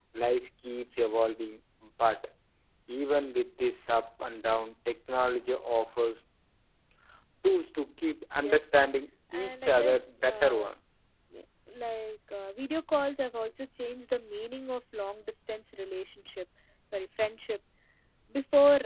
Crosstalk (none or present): present